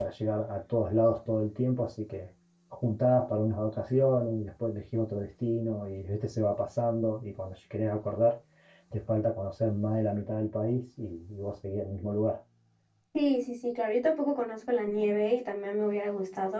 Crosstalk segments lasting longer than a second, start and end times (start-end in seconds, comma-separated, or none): none